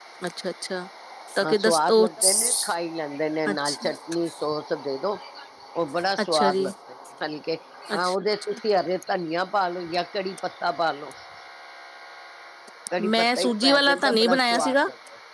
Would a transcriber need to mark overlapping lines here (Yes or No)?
Yes